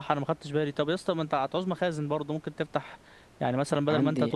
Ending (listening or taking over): listening